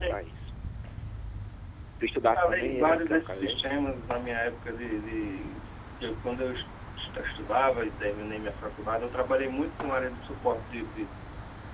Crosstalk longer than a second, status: present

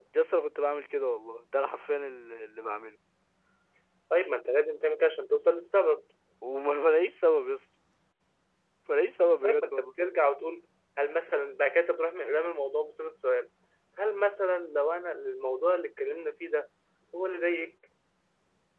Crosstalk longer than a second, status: none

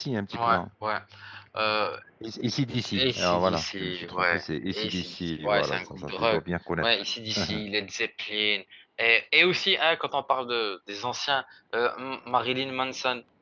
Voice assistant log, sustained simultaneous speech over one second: present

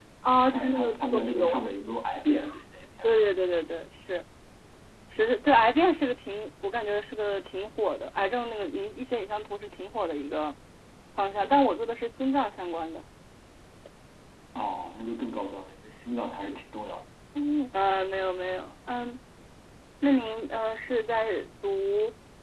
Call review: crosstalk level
present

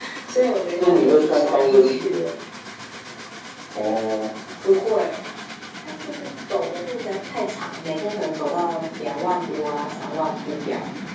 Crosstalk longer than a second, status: present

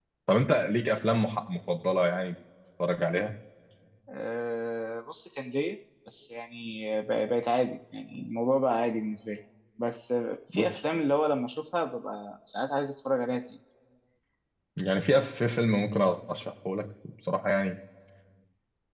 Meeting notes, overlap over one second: none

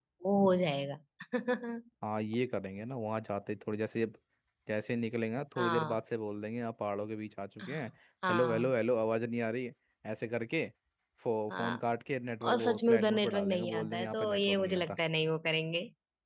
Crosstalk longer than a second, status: present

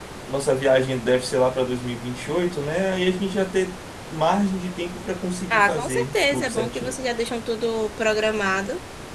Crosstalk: present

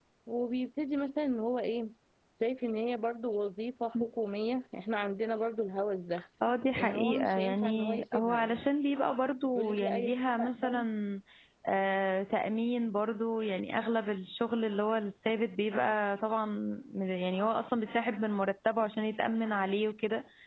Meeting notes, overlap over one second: present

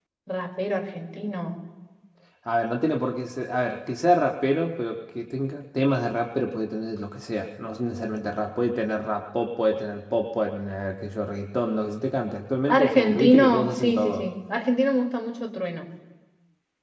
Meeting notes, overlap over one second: present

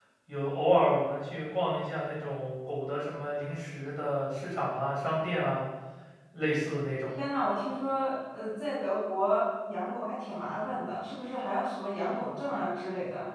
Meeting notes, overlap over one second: none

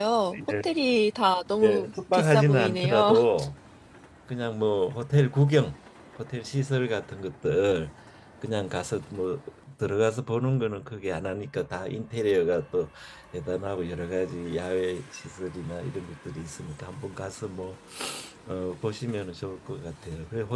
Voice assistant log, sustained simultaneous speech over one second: present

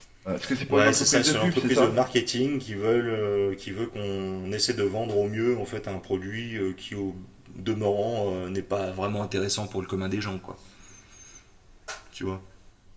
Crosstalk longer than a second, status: present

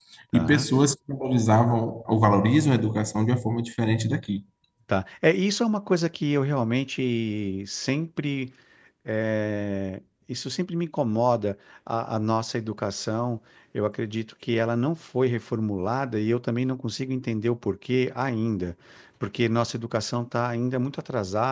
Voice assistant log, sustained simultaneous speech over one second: none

